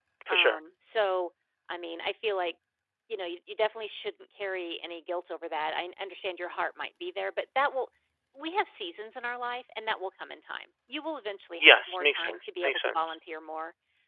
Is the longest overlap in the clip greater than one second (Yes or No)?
Yes